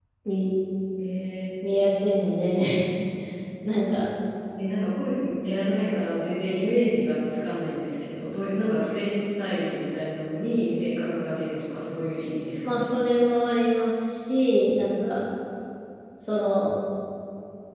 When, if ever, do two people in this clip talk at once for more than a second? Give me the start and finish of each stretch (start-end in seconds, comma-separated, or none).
none